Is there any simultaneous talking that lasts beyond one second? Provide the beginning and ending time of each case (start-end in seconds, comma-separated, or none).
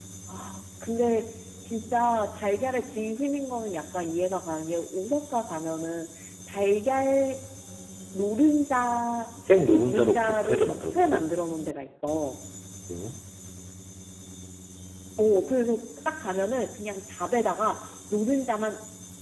9.5-11.3